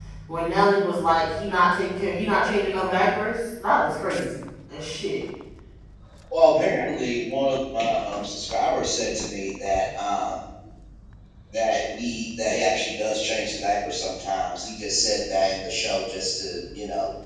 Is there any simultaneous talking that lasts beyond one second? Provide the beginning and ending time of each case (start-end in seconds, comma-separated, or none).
none